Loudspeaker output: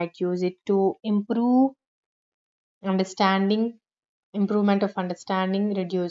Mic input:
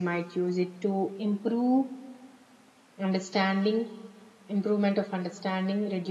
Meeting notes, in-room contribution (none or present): none